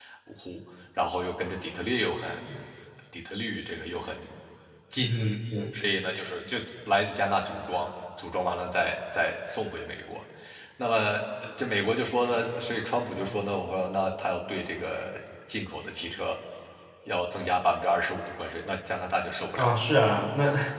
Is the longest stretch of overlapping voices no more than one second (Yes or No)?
Yes